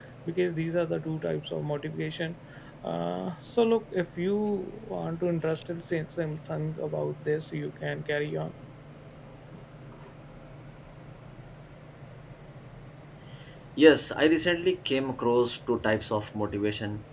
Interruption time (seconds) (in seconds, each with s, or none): none